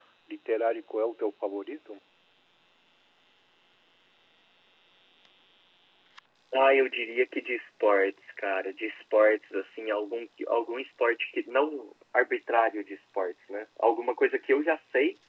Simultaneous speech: No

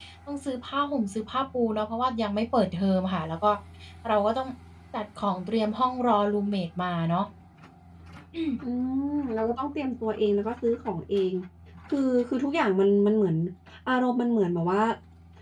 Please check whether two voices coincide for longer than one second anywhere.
No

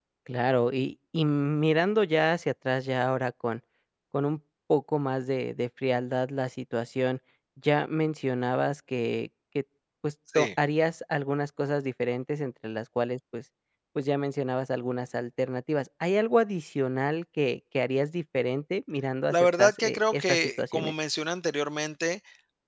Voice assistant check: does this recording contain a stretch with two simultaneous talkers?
Yes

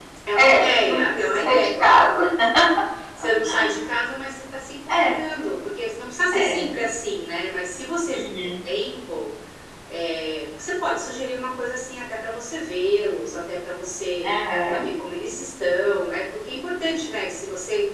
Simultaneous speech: Yes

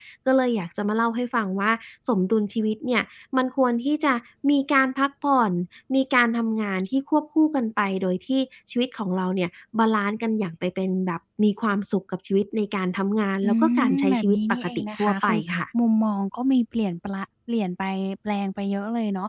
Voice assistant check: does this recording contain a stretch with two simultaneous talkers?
Yes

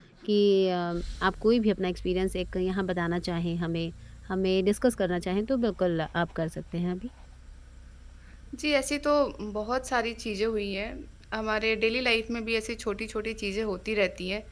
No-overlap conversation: Yes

